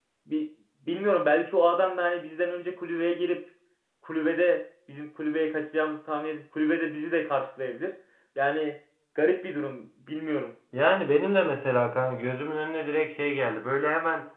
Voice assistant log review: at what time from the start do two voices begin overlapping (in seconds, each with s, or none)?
none